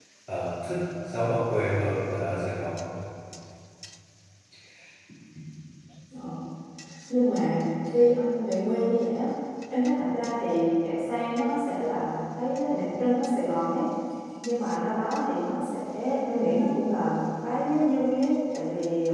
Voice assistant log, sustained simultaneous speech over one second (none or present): none